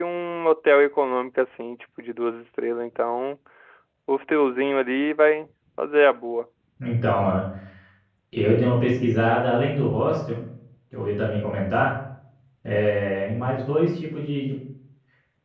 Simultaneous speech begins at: none

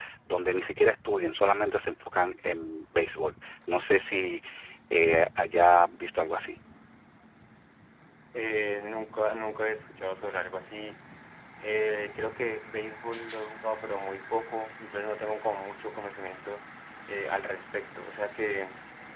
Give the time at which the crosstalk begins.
none

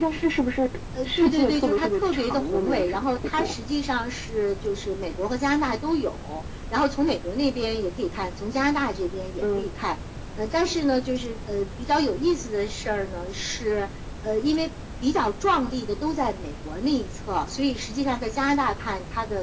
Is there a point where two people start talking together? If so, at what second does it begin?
1.1 s

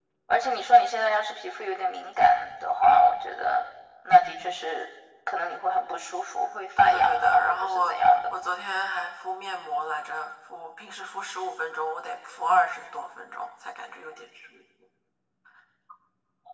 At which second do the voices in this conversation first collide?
6.8 s

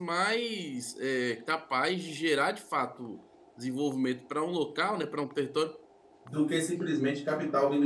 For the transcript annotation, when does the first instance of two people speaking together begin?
none

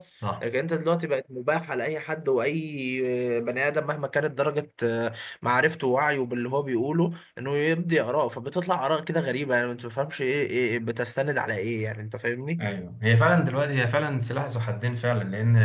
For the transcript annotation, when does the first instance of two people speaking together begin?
none

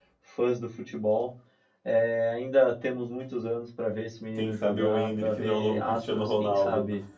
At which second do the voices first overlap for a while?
4.4 s

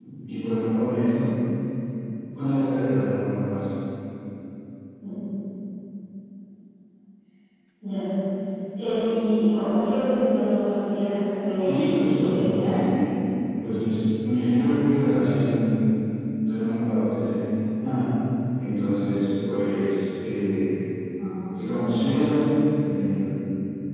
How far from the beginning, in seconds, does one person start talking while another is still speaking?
11.6 s

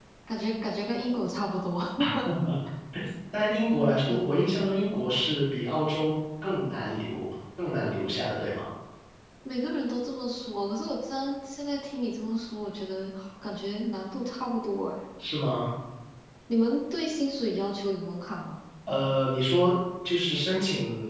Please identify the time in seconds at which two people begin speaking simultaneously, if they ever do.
none

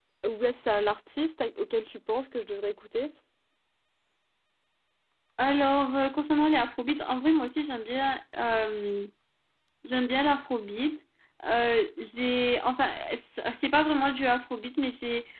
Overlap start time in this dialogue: none

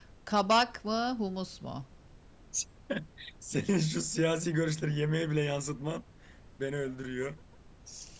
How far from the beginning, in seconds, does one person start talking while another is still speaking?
none

